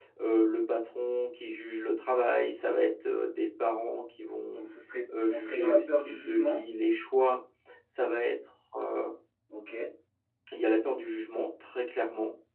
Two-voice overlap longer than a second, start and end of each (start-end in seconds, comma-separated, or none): 5.3-6.6